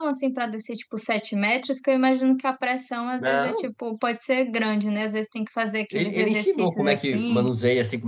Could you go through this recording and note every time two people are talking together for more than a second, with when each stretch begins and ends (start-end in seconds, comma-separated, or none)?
5.9-7.4